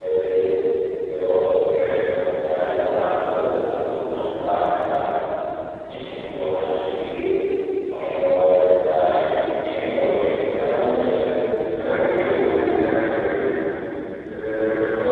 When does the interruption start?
11.7 s

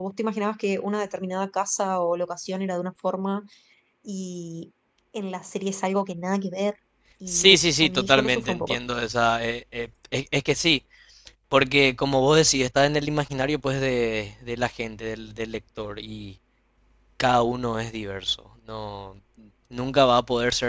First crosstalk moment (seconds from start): 7.3 s

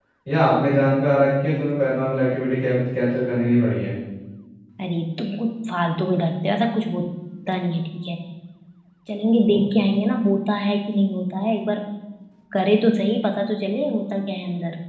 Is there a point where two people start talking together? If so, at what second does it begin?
none

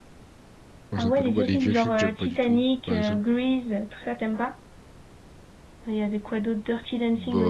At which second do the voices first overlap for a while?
0.9 s

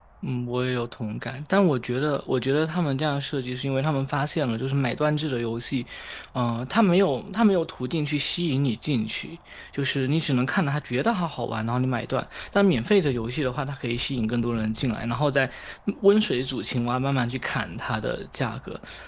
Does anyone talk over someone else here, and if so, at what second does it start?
none

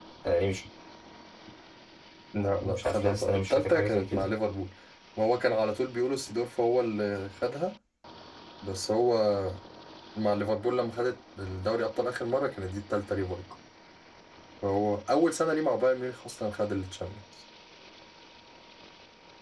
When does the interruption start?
2.6 s

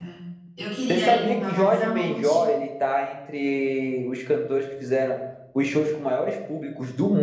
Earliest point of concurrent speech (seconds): 0.9 s

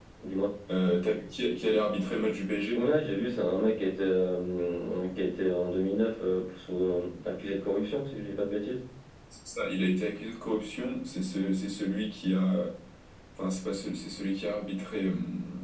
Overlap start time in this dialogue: none

